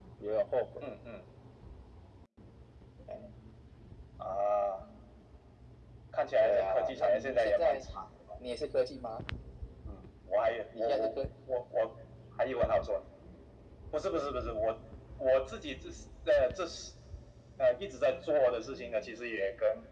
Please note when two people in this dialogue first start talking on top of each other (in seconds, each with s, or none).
6.4 s